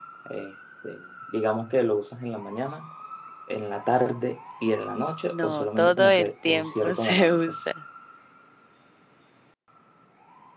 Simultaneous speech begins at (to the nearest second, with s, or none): 5 s